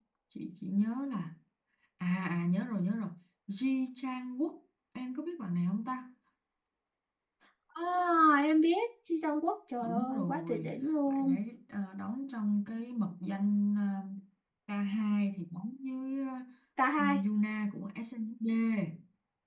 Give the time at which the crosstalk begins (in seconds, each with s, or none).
9.8 s